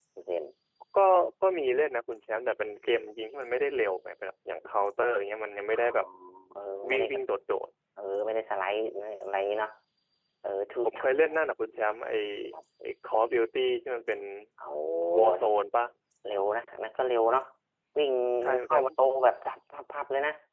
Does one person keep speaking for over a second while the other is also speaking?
No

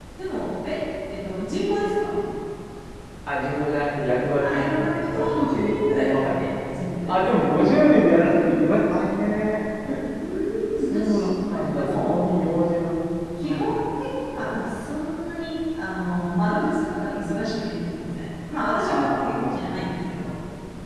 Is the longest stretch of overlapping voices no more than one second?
No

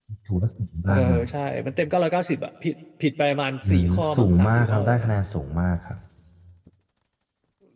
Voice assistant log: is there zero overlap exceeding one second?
No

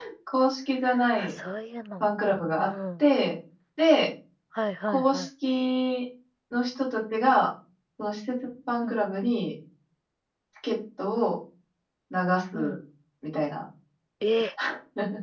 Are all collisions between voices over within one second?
Yes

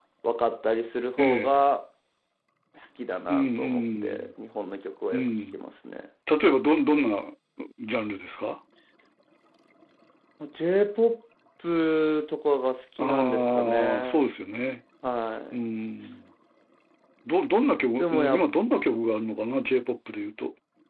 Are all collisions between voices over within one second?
No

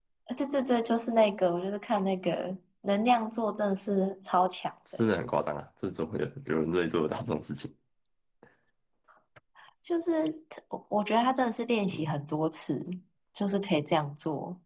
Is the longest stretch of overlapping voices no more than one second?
Yes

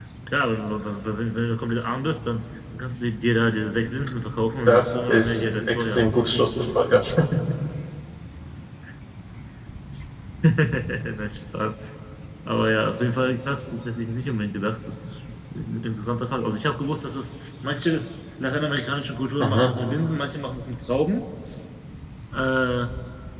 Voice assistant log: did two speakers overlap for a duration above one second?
Yes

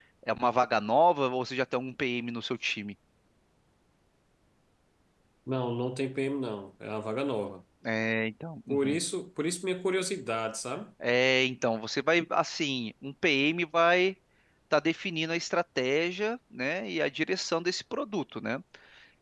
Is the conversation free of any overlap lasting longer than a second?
Yes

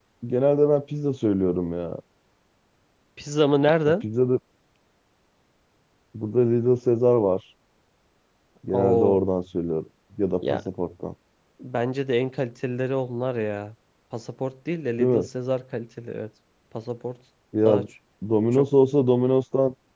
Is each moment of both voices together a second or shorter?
Yes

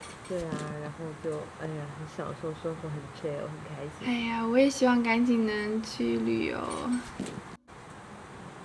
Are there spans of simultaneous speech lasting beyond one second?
No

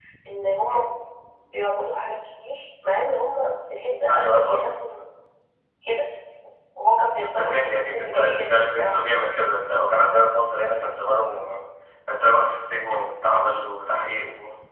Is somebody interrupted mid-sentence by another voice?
Yes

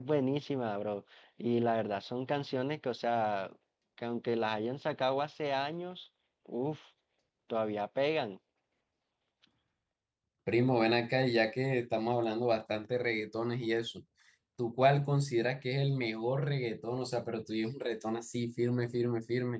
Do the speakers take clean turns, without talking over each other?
Yes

